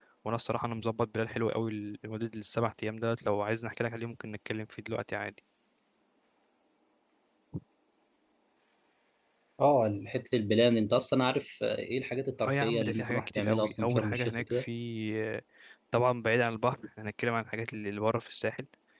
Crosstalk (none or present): present